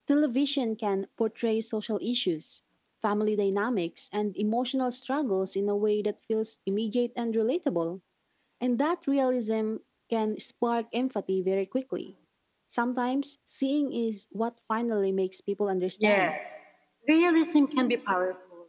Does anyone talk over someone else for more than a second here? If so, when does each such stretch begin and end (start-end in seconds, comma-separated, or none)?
none